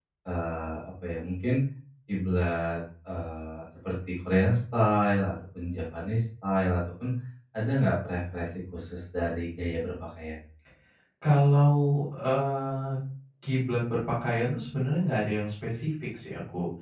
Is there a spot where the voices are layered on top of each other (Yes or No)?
No